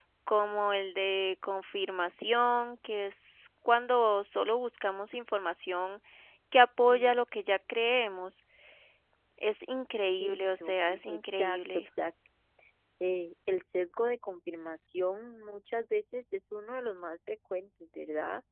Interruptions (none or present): present